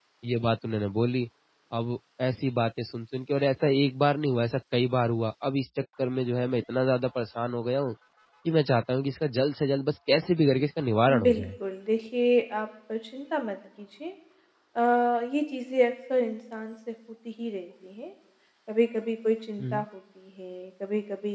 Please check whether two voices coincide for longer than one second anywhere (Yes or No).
No